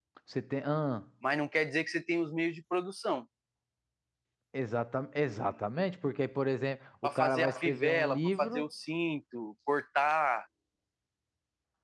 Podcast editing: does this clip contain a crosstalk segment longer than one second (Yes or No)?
Yes